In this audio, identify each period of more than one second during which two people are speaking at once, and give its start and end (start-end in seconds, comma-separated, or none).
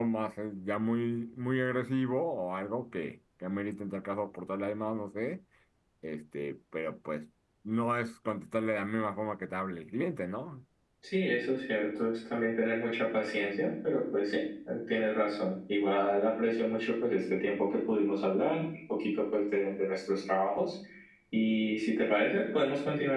none